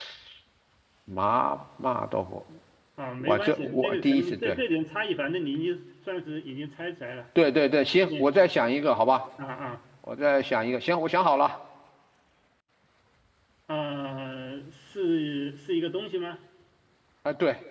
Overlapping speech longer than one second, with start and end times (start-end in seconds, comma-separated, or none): 3.2-4.6